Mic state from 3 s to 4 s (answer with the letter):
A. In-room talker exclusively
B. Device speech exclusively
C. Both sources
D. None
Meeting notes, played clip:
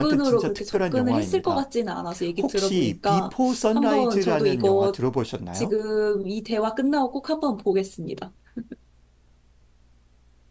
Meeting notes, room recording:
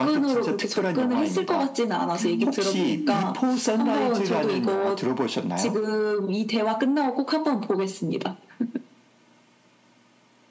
C